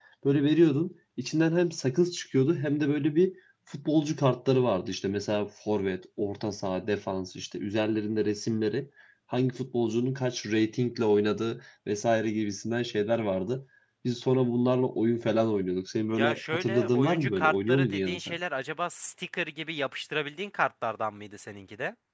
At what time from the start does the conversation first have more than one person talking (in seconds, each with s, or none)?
16.2 s